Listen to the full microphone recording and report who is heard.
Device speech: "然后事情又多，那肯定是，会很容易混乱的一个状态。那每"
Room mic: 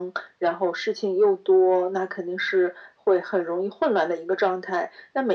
echo only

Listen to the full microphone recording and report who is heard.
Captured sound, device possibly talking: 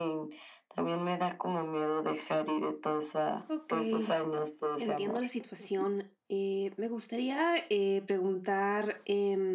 both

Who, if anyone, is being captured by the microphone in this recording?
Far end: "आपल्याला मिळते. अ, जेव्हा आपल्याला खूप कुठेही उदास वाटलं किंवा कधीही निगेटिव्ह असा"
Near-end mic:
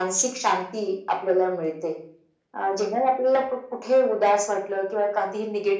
echo only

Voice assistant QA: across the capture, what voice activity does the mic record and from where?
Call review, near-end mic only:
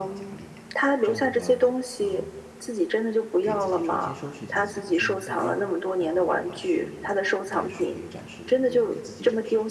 both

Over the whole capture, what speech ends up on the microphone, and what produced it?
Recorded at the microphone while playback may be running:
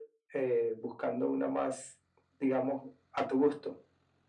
echo only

